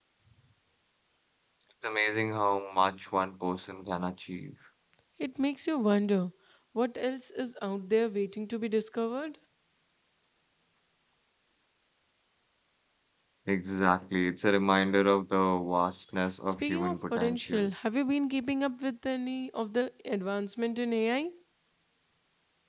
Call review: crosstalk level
present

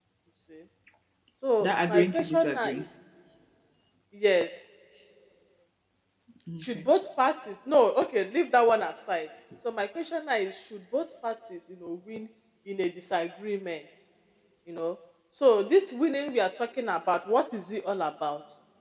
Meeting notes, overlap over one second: present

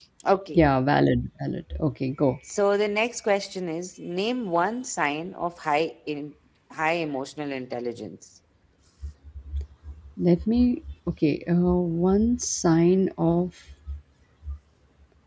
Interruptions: none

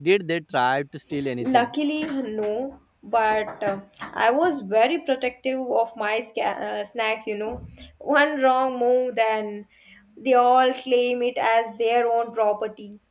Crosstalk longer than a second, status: none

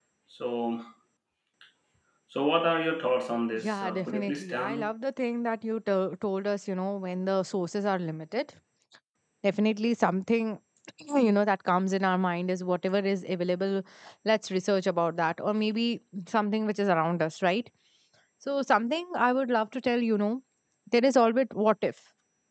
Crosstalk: present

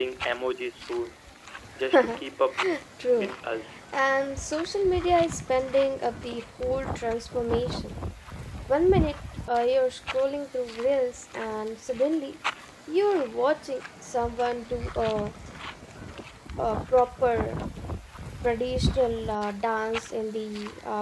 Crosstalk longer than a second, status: none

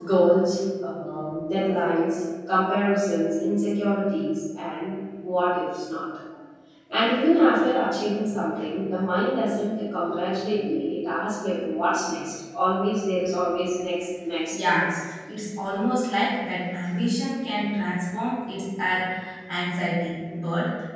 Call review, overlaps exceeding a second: none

